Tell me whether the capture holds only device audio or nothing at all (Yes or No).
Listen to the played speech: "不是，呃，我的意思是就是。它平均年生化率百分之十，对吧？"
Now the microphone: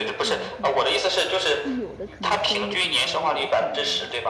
No